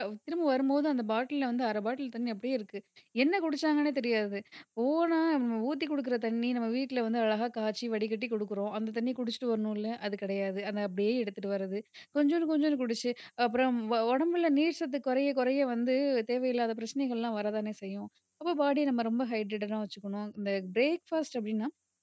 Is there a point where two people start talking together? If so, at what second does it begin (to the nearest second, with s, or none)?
none